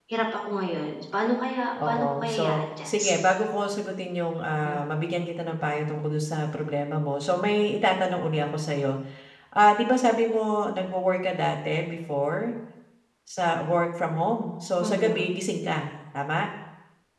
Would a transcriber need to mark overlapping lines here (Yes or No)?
Yes